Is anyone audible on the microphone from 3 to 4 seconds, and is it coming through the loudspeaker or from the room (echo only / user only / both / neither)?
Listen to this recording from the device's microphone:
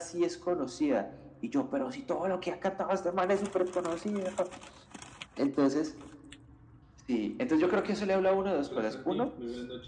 echo only